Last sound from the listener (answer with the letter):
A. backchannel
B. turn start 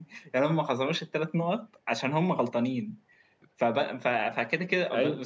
A